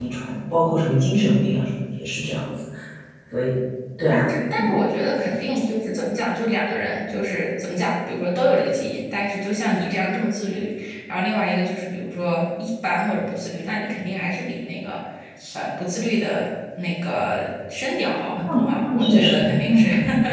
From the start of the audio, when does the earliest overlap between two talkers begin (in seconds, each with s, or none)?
18.5 s